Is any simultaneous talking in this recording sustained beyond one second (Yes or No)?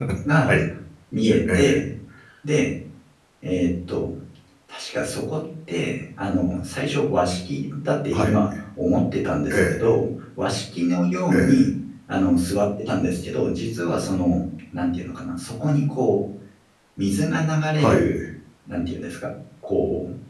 No